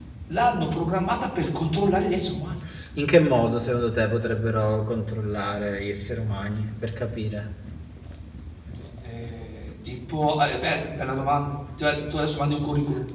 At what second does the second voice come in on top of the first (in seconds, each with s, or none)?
none